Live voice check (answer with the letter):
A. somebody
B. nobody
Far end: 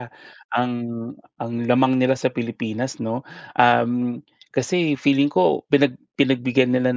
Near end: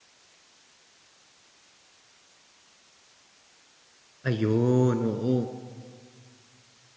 A